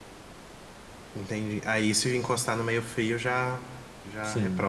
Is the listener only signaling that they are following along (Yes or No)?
No